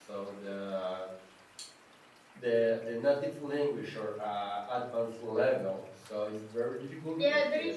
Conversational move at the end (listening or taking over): taking over